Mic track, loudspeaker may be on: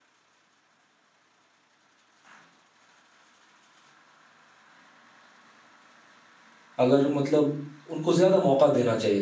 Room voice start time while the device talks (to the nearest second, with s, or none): 7 s